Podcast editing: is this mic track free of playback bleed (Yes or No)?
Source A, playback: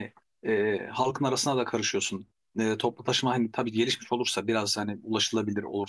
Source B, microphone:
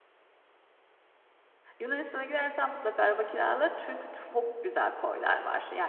Yes